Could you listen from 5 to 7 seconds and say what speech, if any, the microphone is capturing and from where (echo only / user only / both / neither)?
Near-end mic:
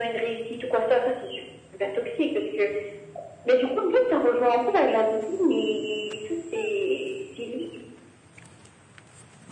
echo only